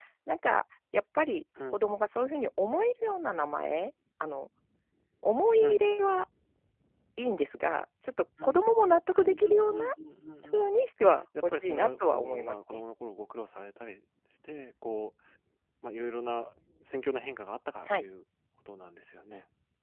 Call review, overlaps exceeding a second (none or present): present